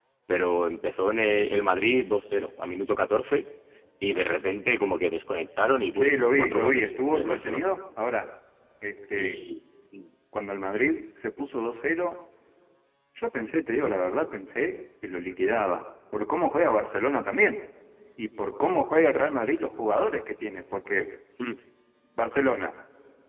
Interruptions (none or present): present